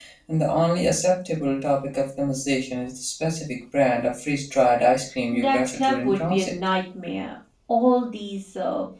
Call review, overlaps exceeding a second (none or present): present